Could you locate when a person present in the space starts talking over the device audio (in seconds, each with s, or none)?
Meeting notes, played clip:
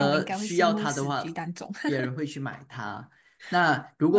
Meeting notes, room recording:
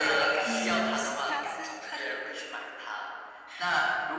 0.4 s